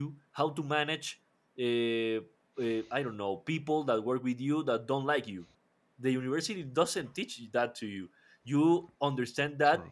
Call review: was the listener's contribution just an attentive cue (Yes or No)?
Yes